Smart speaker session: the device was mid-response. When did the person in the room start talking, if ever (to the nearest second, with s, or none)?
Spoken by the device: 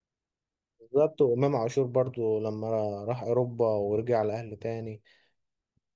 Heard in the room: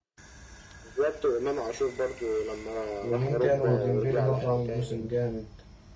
3 s